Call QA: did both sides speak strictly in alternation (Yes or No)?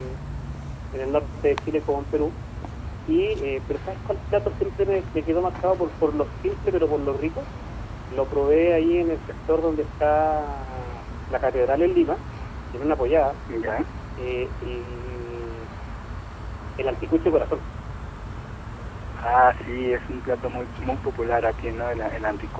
Yes